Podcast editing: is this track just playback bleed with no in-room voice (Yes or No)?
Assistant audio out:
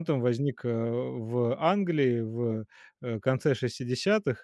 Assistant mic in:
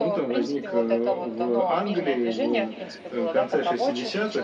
No